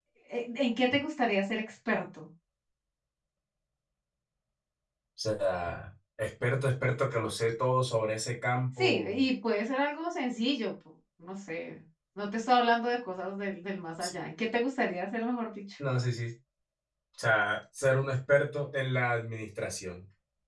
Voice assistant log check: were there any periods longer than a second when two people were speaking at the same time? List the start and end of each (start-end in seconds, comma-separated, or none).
none